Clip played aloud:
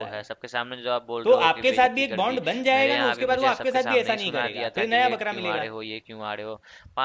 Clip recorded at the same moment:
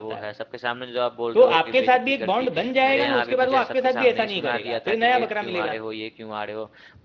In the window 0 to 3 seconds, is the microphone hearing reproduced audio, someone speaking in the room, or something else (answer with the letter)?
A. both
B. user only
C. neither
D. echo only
D